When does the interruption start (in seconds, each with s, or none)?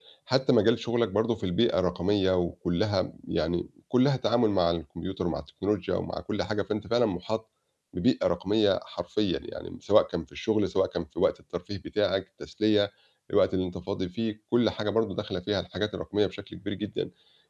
none